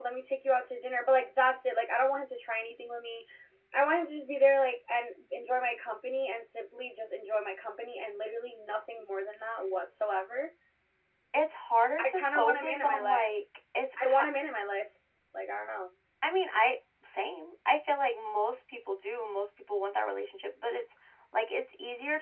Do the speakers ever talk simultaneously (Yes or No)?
Yes